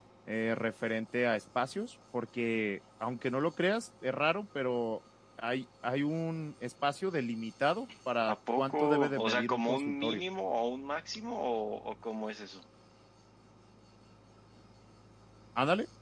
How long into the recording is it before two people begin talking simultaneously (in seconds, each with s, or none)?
8.2 s